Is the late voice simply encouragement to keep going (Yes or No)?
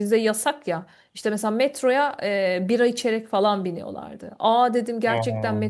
Yes